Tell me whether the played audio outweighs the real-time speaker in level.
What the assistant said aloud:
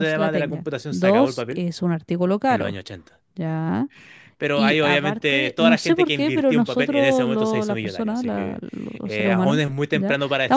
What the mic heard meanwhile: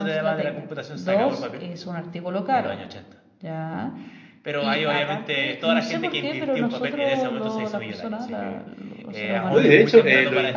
No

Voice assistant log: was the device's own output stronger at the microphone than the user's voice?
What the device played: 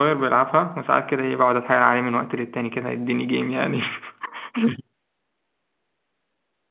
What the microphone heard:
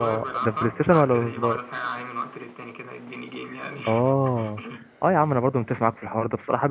No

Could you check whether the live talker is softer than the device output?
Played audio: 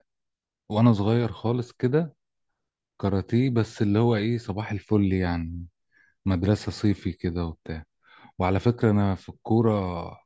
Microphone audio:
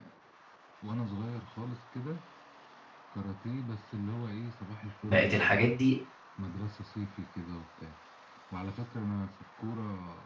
No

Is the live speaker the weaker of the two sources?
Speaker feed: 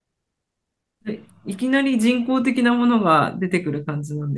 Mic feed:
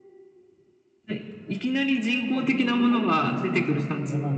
Yes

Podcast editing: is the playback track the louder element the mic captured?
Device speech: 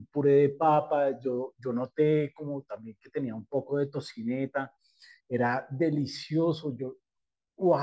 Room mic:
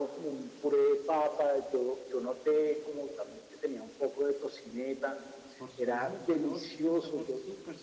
Yes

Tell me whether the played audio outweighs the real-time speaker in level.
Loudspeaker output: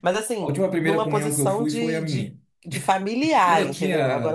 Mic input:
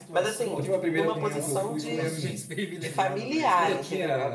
Yes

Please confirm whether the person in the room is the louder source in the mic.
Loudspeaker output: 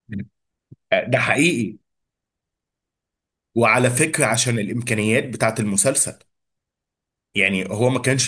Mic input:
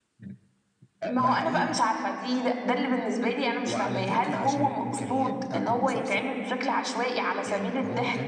Yes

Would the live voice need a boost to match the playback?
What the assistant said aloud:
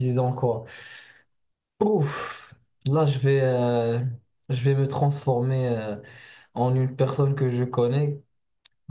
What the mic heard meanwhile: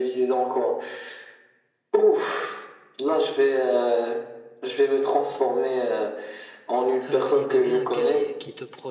Yes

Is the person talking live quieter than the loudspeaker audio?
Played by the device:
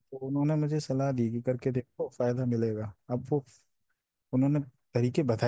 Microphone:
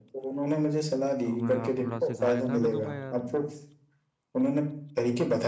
Yes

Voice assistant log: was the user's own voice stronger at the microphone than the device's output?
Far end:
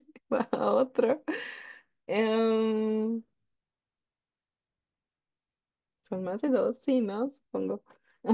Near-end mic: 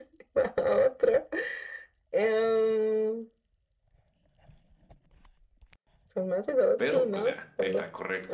No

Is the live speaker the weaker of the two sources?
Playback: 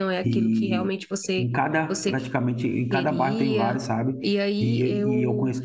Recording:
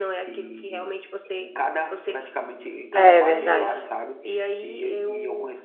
No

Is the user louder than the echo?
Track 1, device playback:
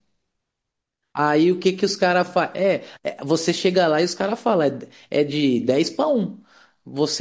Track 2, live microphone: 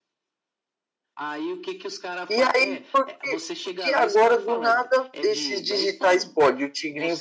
Yes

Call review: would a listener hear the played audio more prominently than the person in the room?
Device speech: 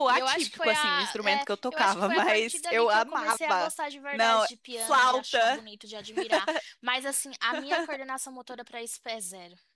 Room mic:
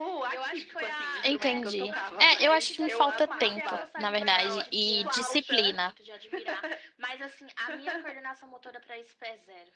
No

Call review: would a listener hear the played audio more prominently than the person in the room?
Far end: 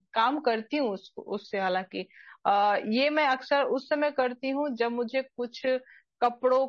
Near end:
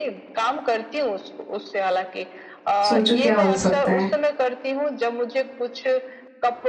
No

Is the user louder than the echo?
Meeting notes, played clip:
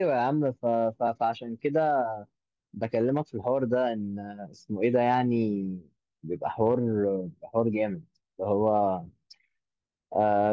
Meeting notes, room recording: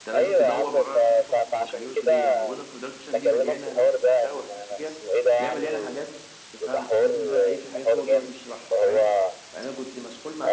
No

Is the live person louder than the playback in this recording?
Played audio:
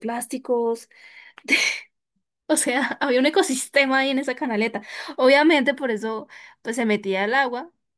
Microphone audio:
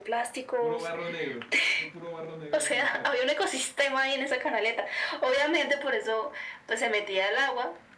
No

